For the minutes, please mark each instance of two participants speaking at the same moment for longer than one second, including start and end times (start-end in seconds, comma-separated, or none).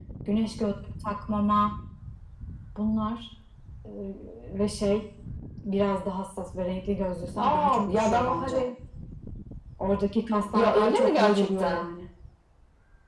7.4-8.7, 10.5-11.8